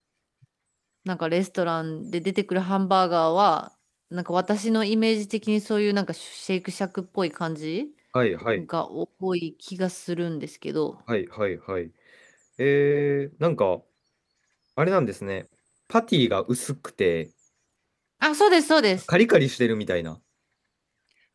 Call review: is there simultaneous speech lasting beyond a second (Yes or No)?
No